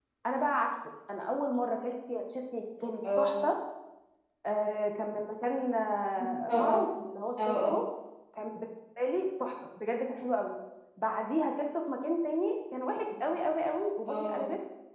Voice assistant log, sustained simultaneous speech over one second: none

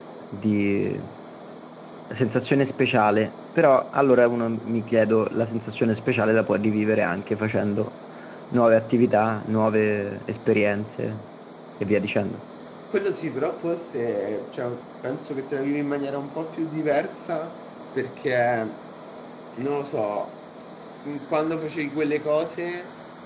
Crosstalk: none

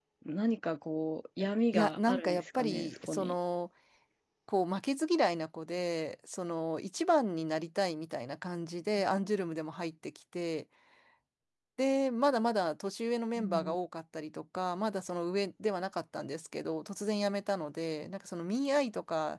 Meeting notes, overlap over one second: present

